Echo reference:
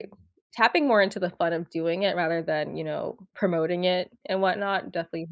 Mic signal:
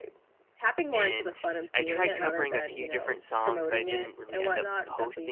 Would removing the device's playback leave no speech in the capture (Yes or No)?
No